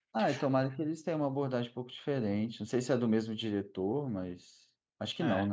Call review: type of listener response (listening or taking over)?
taking over